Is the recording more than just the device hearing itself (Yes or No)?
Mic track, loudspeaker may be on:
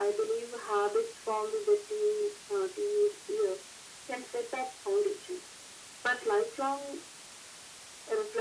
No